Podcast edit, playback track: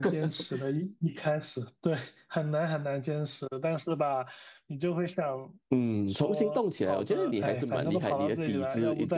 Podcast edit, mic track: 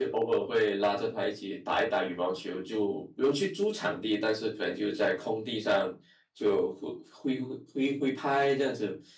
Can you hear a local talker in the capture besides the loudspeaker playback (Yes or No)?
Yes